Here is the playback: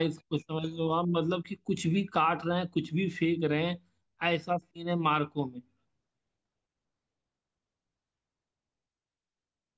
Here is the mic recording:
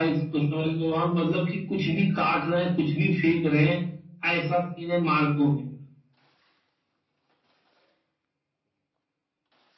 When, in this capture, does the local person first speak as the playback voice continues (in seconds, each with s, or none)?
none